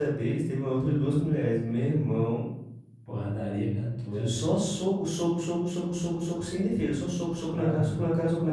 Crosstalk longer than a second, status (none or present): none